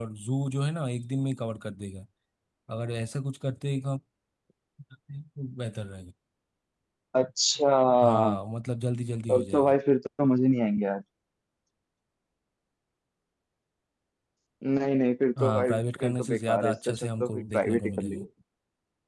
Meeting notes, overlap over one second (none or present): present